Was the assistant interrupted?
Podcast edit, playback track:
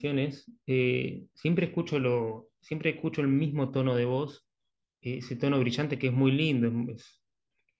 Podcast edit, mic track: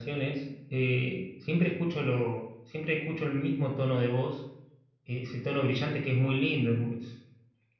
No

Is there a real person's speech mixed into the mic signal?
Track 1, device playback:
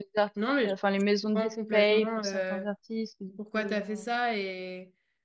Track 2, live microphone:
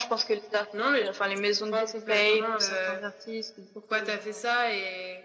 No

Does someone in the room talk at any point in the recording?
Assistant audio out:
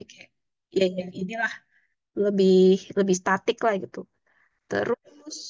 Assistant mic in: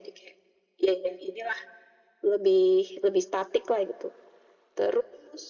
No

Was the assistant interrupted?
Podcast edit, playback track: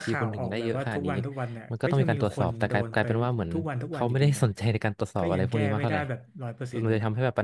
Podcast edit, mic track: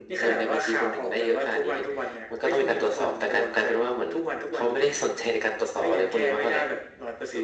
No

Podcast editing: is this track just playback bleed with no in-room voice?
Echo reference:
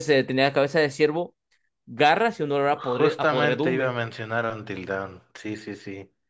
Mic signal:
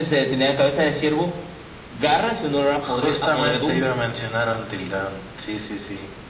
Yes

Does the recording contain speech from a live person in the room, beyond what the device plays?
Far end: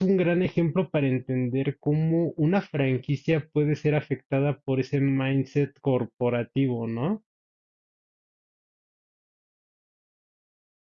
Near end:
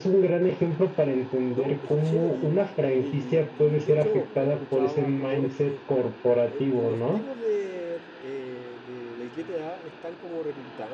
Yes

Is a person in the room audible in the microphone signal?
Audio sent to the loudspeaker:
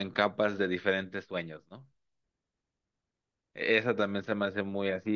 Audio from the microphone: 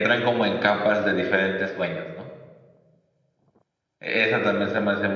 No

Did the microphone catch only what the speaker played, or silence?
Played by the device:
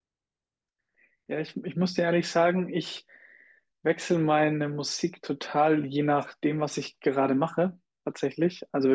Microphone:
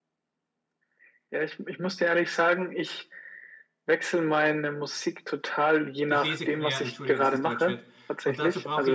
No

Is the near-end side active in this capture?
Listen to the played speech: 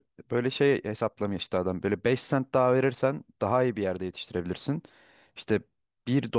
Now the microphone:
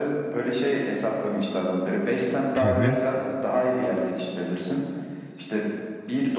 Yes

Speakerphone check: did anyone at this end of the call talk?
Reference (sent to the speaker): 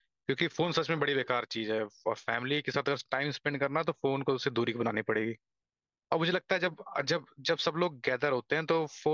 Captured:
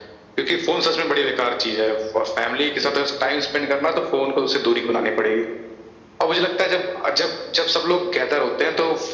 No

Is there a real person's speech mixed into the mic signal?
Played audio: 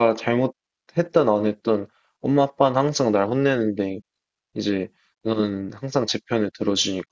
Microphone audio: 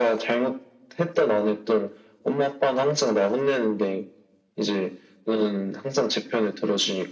No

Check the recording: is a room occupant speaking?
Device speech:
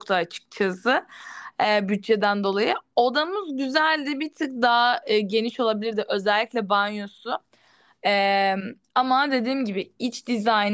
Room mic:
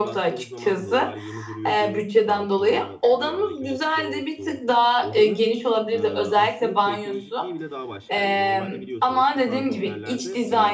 Yes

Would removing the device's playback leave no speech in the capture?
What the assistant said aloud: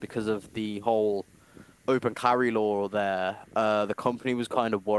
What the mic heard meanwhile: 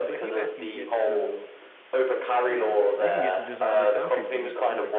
No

